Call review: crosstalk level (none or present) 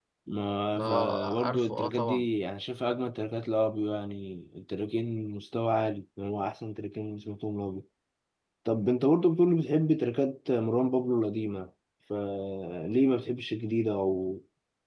present